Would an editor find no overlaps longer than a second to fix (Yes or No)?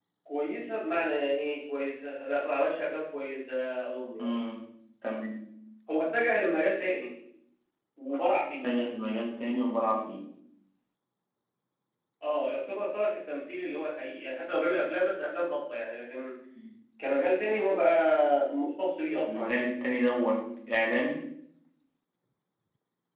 Yes